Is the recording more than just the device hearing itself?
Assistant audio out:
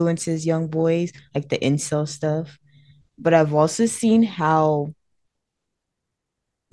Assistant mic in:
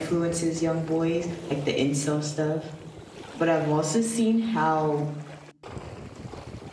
No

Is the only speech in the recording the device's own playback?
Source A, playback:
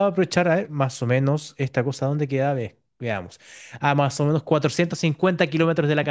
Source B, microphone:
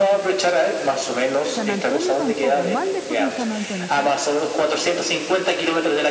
No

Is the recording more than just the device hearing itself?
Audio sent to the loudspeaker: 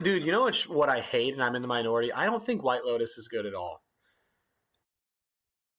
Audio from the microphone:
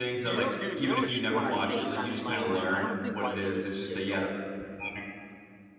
Yes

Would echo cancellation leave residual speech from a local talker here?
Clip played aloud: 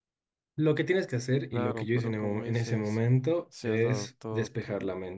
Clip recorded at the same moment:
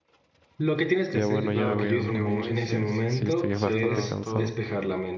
Yes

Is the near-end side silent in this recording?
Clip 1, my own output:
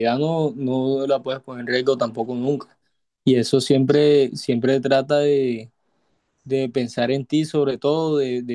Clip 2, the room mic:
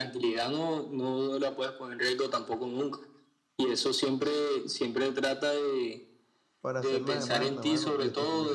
No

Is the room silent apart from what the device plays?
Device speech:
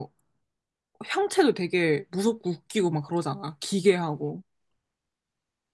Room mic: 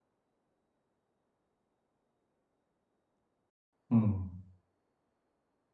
No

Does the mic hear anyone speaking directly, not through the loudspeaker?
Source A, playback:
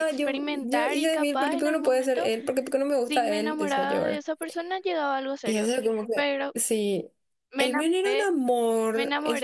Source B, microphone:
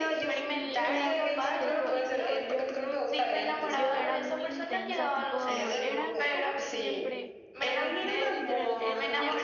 Yes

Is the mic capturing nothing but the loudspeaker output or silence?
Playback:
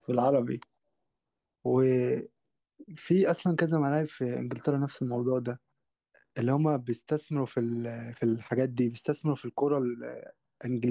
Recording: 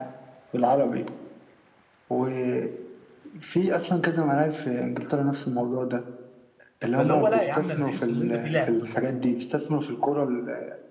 No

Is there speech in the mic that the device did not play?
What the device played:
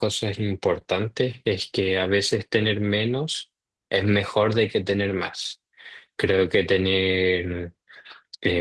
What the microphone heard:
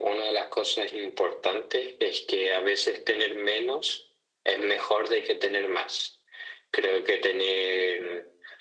No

